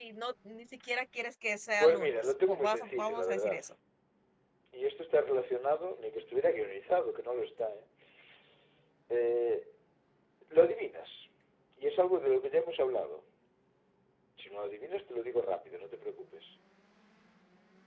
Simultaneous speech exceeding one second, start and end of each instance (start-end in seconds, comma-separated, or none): 1.8-3.6